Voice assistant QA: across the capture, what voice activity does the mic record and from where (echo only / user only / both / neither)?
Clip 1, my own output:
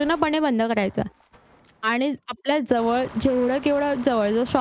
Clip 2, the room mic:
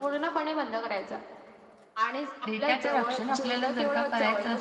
both